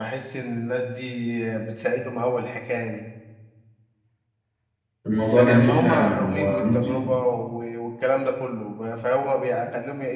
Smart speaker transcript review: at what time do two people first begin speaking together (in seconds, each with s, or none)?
5.3 s